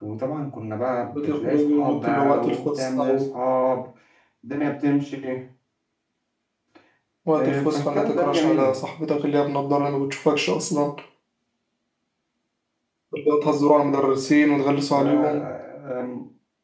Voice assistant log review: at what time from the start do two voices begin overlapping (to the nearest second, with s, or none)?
1 s